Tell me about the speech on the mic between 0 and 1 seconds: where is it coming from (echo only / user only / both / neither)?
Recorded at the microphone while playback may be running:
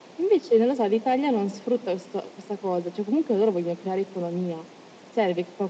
echo only